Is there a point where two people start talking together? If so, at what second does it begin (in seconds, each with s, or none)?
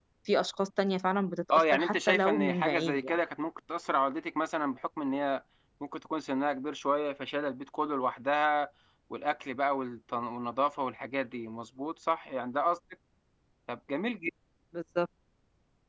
1.5 s